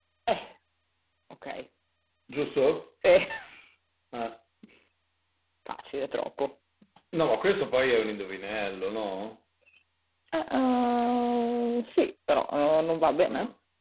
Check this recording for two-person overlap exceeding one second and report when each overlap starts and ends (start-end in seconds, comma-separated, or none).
none